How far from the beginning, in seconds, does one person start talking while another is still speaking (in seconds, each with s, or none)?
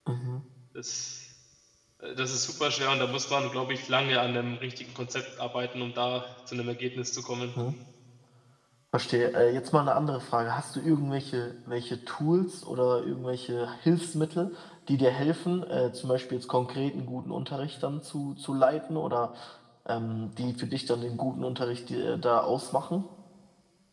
none